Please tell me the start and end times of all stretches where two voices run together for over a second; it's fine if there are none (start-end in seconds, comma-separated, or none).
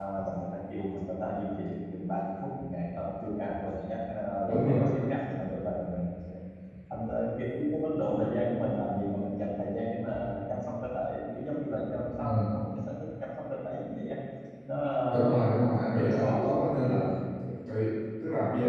15.9-17.1